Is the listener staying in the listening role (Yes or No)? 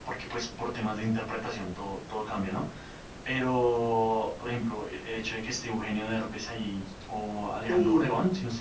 Yes